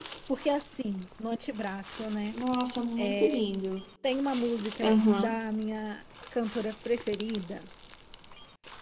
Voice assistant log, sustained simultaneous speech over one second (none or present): none